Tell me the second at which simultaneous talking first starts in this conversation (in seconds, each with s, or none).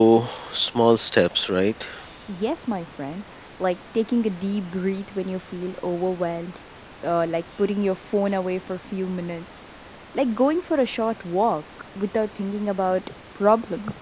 none